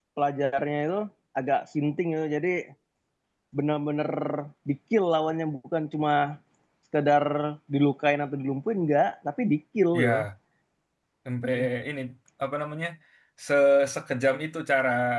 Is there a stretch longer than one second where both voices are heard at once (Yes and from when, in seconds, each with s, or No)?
No